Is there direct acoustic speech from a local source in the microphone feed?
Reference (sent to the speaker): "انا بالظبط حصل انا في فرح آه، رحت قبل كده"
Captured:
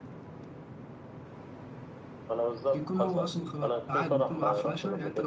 Yes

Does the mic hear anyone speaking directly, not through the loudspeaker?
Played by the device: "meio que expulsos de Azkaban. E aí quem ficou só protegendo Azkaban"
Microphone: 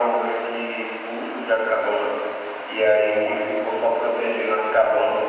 No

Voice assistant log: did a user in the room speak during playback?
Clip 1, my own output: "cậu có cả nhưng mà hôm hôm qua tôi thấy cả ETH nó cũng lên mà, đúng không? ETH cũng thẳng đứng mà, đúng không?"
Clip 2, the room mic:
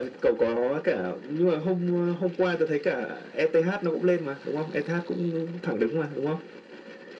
No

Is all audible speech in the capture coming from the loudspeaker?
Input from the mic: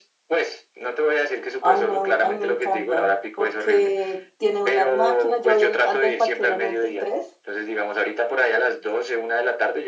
No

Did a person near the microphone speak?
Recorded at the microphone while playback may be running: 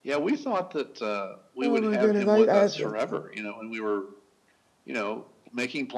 Yes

